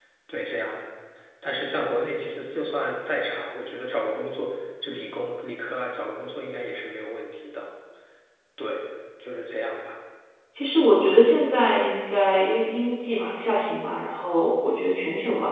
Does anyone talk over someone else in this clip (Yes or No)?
No